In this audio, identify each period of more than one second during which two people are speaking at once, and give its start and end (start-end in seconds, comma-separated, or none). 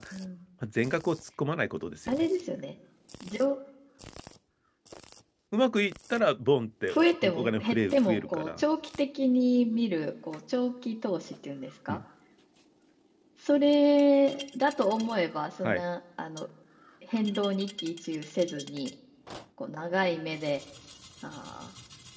6.9-8.6